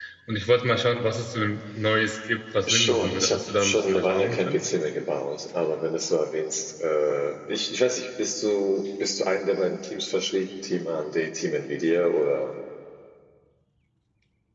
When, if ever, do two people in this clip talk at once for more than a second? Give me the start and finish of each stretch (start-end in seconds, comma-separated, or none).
2.7-4.6